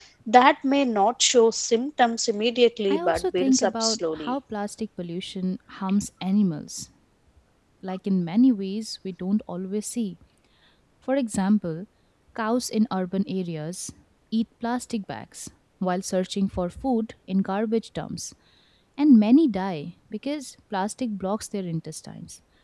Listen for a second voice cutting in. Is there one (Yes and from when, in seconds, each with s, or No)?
Yes, from 2.9 s